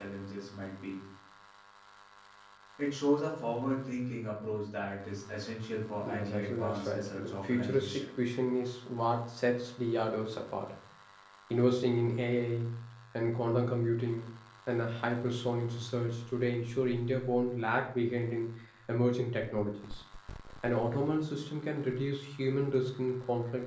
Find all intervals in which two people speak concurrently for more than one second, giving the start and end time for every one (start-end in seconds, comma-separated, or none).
6.0-8.1